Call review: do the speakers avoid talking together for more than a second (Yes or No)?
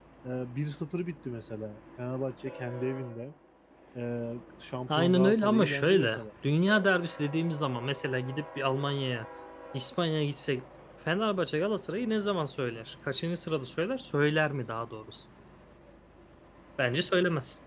No